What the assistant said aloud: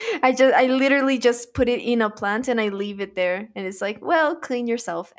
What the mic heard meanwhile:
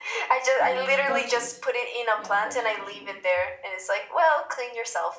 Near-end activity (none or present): present